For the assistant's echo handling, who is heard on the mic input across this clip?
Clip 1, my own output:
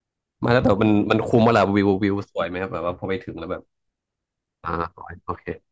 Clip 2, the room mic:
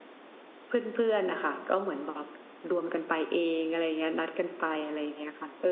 user only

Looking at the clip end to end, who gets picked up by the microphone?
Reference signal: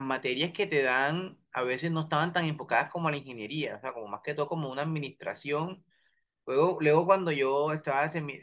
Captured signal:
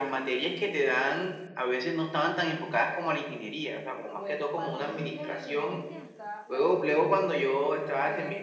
both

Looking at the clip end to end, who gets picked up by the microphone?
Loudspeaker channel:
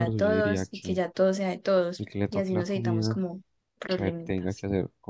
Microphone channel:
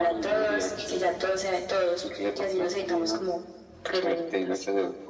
echo only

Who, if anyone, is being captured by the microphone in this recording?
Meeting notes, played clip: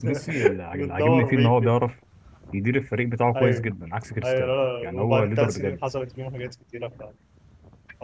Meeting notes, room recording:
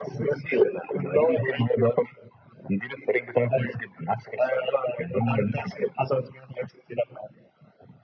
echo only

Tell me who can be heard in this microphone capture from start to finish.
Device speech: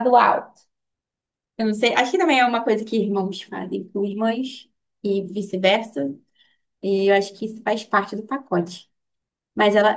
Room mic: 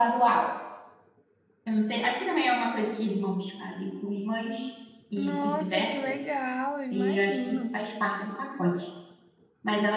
both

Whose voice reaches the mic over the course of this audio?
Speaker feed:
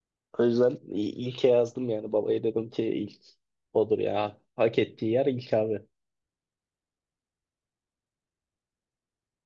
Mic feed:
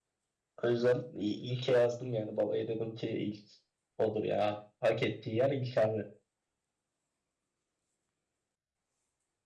echo only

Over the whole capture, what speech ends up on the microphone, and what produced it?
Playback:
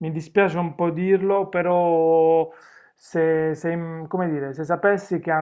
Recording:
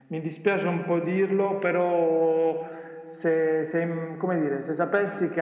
echo only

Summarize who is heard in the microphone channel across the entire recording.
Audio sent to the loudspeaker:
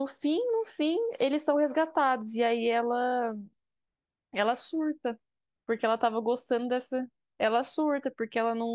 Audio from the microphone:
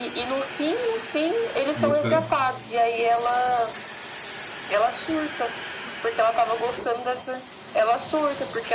both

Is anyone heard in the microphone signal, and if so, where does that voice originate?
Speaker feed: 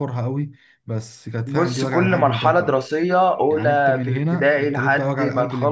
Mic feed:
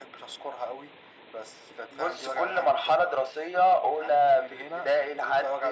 echo only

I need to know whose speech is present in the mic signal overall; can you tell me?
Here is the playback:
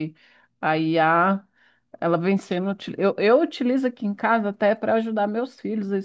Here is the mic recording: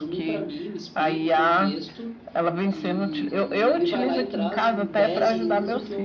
both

